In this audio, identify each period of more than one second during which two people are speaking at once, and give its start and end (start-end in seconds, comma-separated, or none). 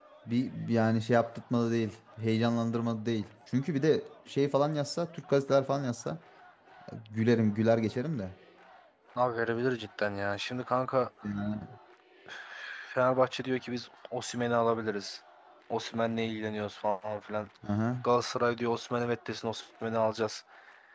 none